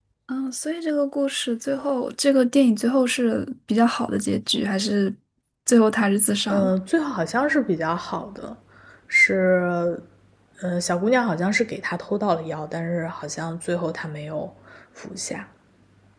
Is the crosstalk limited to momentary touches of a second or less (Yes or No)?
Yes